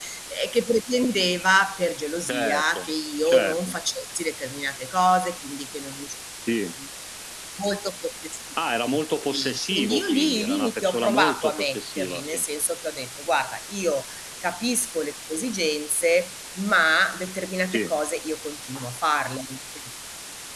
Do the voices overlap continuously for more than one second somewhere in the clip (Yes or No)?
Yes